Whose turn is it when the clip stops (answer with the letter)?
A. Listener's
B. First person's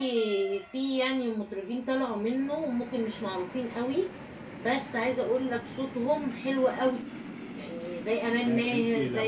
A